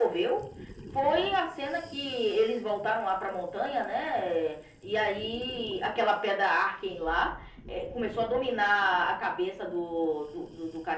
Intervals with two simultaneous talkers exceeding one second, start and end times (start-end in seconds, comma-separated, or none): none